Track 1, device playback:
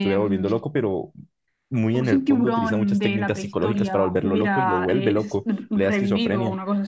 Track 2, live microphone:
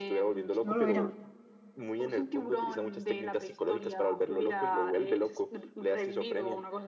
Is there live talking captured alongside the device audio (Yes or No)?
Yes